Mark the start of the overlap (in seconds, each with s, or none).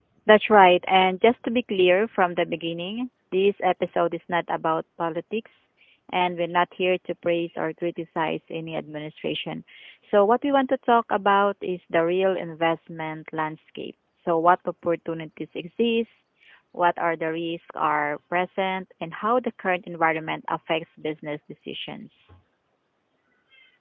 none